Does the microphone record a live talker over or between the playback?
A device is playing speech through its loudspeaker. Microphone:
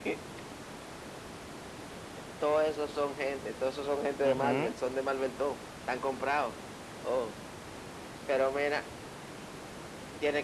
Yes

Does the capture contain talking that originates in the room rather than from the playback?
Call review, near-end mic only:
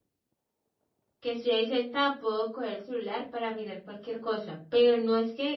Yes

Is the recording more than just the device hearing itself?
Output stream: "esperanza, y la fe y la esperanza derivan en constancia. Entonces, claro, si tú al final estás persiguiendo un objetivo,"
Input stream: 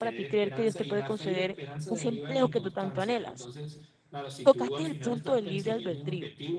Yes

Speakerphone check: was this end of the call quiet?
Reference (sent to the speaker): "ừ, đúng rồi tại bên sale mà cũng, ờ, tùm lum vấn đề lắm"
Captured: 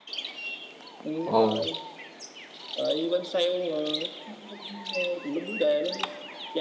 No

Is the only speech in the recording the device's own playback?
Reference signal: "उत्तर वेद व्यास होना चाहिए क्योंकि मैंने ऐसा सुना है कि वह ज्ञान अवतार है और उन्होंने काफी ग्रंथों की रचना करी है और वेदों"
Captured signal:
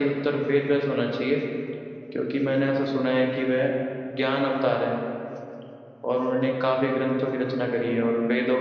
Yes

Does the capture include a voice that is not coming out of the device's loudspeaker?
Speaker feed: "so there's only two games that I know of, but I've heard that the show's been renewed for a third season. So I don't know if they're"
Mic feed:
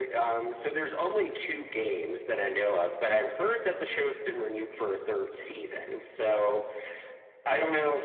No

